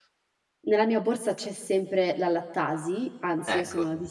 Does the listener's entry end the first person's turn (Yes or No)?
No